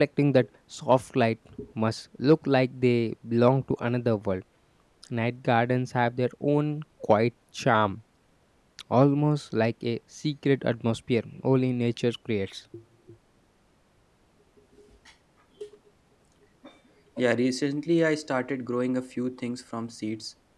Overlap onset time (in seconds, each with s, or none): none